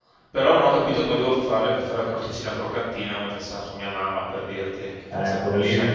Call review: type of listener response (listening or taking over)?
taking over